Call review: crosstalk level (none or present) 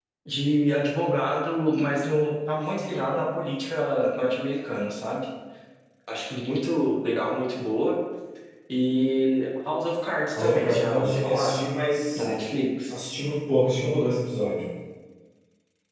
present